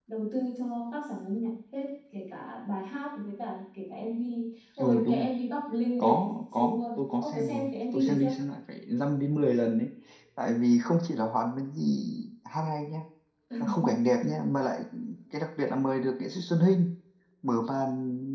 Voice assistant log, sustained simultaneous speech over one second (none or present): present